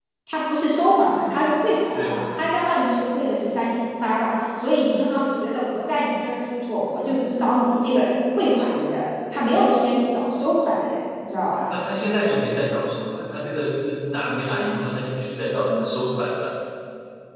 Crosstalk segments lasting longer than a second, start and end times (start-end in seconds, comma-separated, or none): none